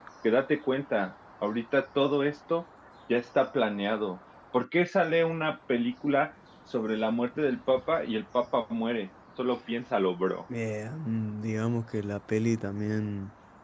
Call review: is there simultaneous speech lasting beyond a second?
No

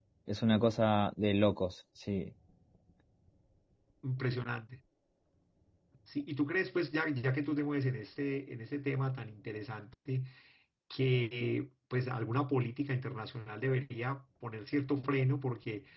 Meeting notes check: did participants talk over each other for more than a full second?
No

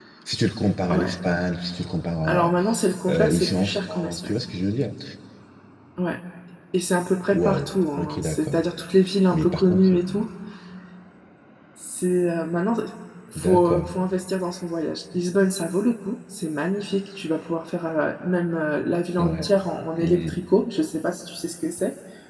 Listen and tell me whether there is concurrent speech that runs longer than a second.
Yes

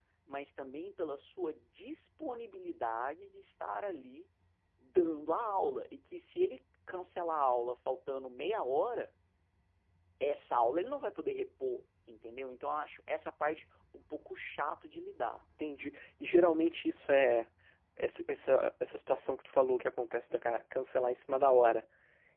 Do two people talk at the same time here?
No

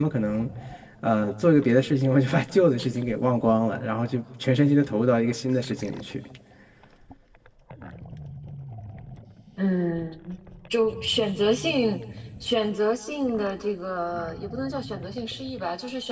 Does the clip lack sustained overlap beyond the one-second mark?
Yes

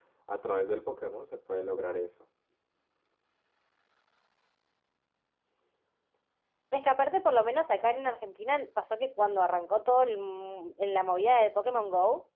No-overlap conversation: Yes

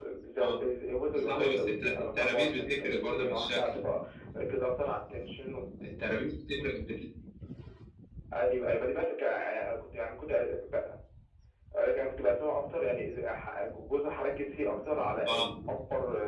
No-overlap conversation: No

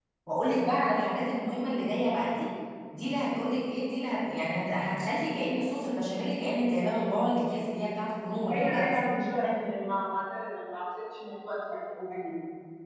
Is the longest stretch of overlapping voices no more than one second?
Yes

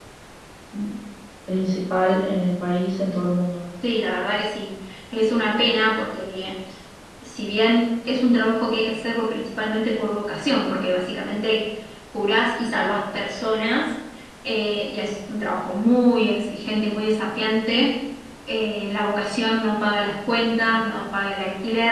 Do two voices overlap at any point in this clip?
No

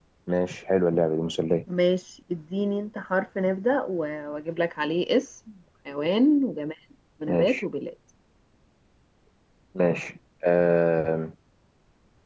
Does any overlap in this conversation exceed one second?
No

